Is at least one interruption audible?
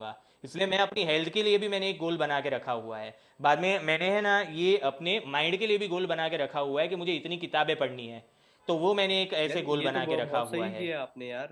Yes, from 9.5 s

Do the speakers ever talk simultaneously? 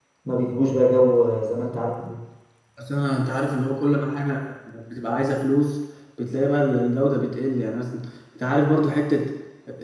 No

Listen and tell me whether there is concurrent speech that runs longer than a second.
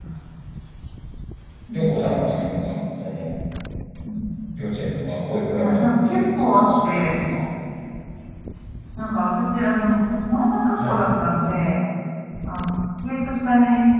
Yes, from 5.5 s

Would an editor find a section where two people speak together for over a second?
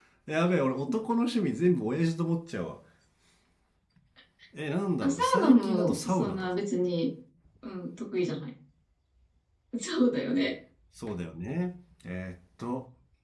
Yes, from 5.0 s

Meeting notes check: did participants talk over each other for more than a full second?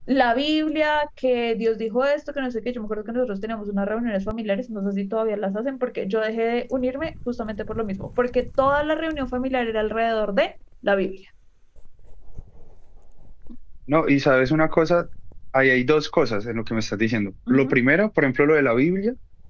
No

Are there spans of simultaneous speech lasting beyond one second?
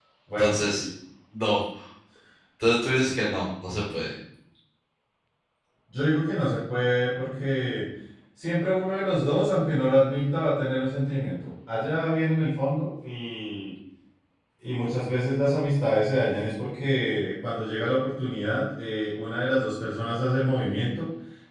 No

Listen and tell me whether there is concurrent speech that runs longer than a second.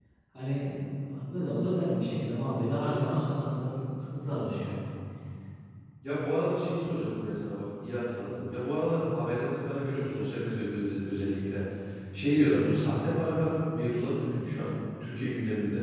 No

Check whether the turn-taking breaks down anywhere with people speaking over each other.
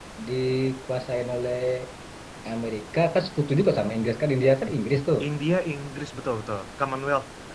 No

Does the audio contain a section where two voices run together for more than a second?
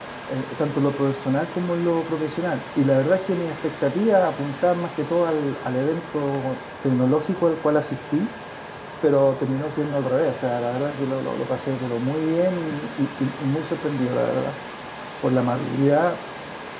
No

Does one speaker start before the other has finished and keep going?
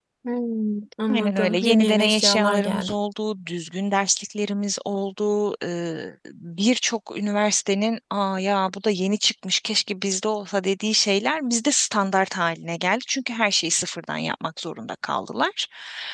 Yes, from 1.1 s

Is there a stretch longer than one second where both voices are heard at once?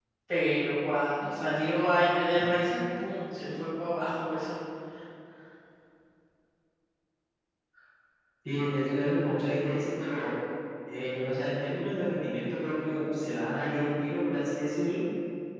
No

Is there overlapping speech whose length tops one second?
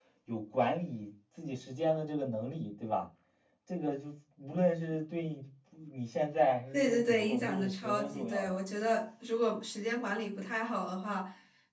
Yes, from 6.7 s

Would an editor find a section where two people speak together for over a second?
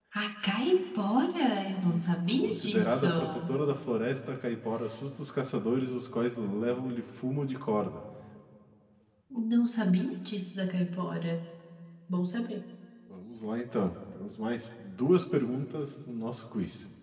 Yes, from 1.8 s

